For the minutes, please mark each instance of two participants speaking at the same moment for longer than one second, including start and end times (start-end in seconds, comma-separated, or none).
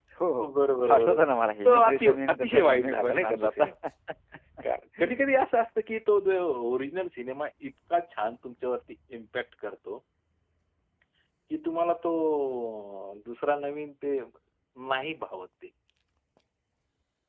1.6-3.6